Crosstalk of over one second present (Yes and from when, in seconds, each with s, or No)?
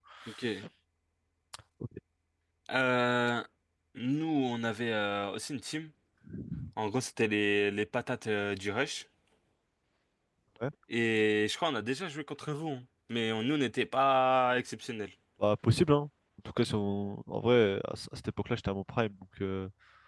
No